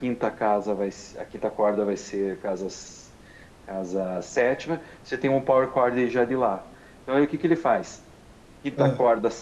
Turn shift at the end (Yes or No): No